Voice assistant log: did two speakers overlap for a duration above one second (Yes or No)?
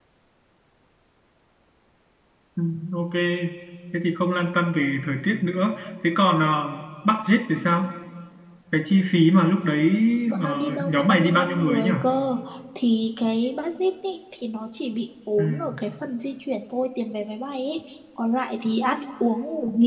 Yes